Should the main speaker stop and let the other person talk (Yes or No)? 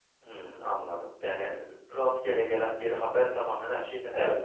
Yes